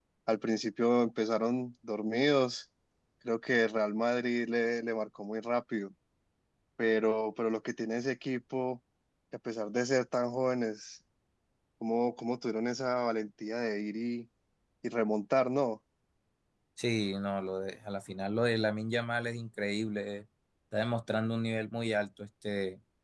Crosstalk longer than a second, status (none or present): none